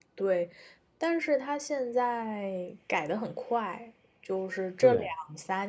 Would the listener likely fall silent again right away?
Yes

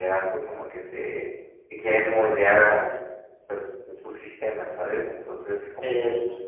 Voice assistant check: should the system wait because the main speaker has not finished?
Yes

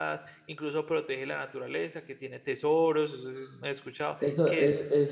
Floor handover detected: Yes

